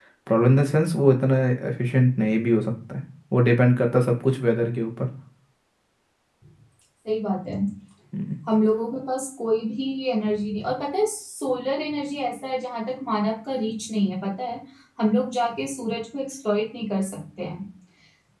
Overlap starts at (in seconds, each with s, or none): none